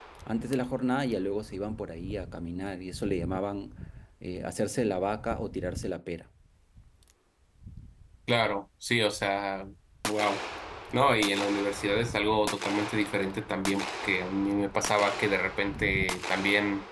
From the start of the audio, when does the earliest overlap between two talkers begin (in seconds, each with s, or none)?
none